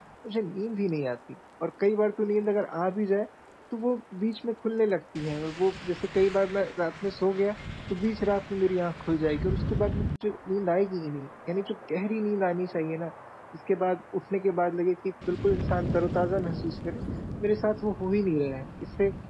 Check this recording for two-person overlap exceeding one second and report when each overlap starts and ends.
none

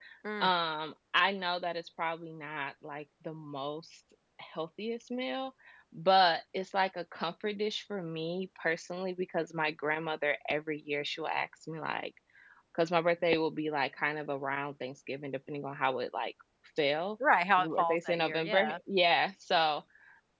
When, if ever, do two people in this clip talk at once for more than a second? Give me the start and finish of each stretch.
17.6-18.8

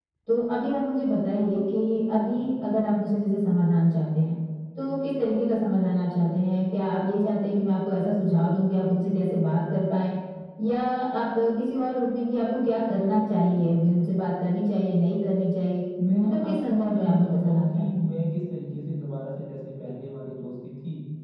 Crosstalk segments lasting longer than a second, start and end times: 16.2-18.1

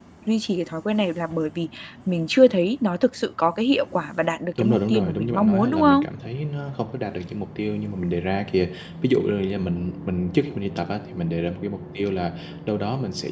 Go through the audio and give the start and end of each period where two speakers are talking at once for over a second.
4.6-6.0

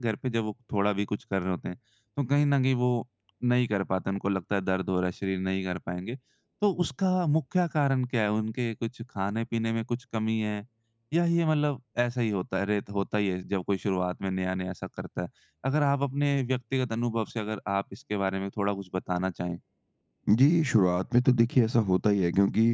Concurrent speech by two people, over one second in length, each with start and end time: none

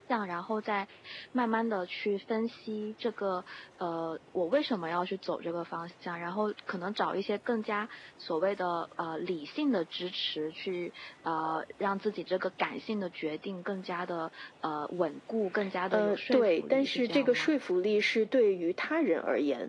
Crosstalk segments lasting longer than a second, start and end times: 15.9-17.5

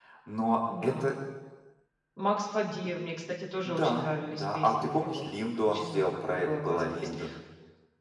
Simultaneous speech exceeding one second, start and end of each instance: 3.6-5.2, 5.7-7.1

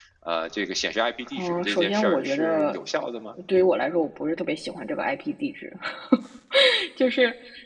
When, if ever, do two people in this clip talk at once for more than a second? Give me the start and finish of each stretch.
1.3-2.8

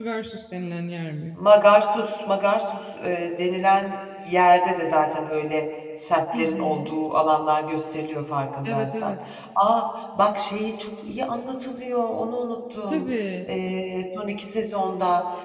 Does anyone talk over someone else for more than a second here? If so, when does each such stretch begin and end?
none

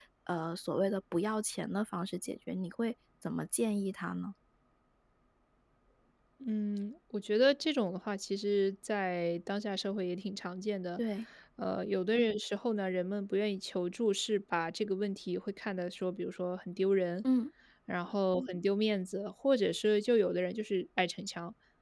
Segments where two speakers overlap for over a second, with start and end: none

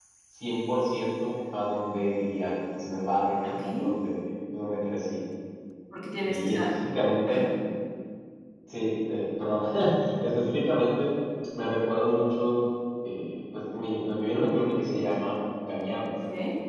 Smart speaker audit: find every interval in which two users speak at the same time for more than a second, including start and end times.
none

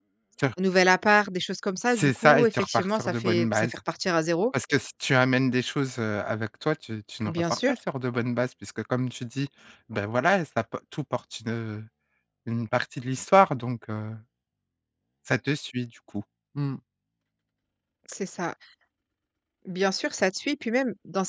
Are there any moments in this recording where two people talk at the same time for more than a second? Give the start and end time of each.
1.9-3.7

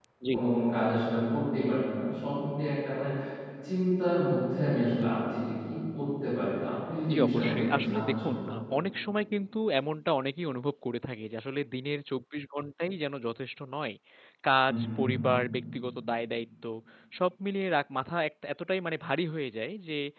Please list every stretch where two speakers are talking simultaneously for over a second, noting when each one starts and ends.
7.1-8.6

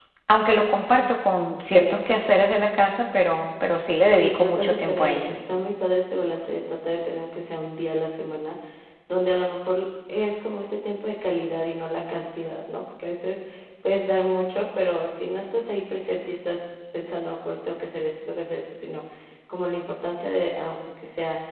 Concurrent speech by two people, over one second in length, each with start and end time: 4.1-5.3

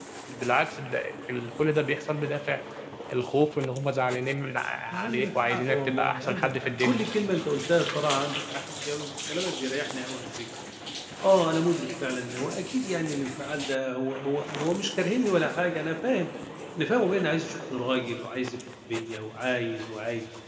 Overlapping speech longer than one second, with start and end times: 5.0-7.0

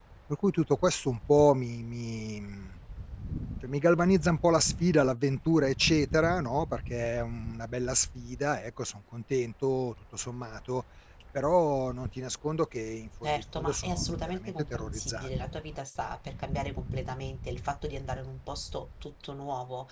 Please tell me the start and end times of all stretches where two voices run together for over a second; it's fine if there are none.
13.2-15.3

